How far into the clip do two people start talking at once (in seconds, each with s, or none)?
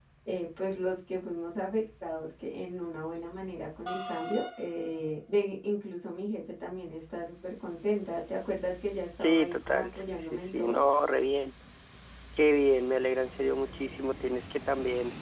9.2 s